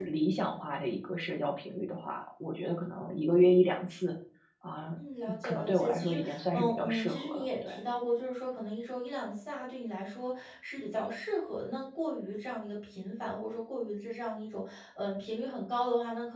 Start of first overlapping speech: 5.4 s

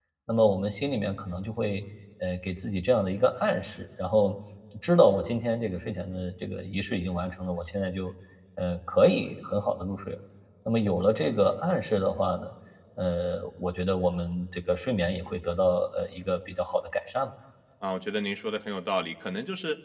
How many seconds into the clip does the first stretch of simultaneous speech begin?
none

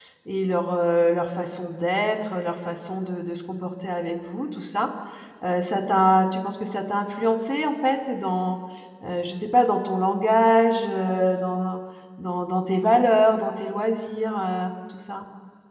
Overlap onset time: none

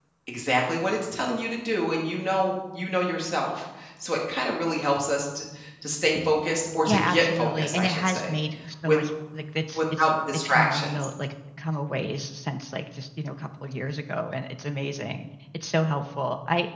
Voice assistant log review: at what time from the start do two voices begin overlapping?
6.9 s

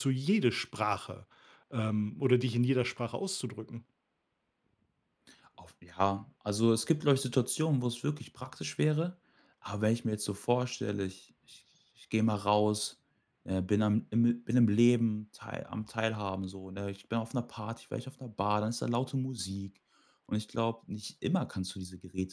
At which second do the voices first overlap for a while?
none

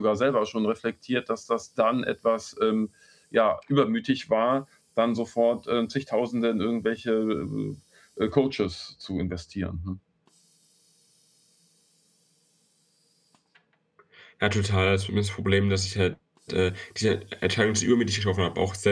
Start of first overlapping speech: none

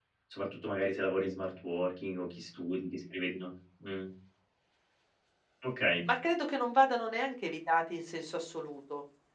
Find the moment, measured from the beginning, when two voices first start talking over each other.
none

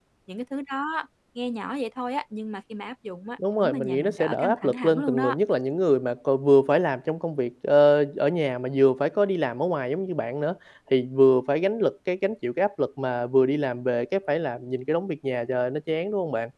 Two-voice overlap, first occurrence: 3.4 s

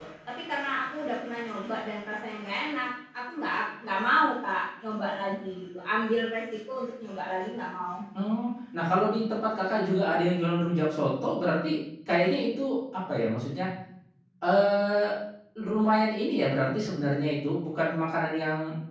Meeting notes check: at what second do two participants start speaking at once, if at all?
none

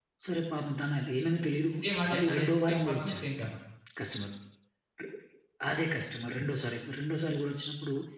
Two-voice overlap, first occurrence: 2.1 s

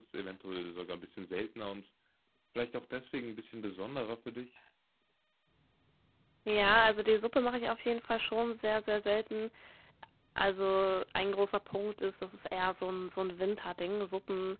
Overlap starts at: none

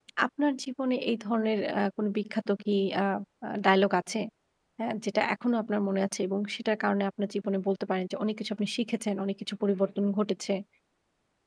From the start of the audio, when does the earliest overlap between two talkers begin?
none

